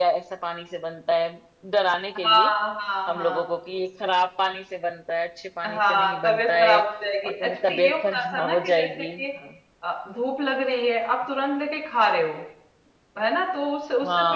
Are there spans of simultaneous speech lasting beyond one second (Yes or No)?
Yes